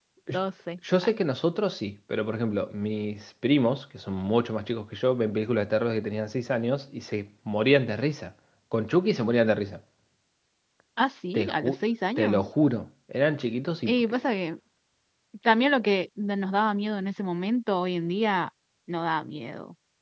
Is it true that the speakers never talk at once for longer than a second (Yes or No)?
Yes